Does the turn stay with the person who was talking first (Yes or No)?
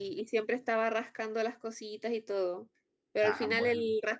Yes